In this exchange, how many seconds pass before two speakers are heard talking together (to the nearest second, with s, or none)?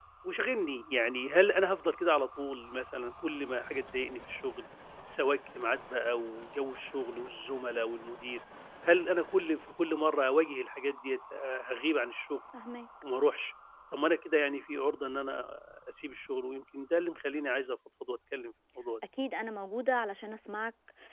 none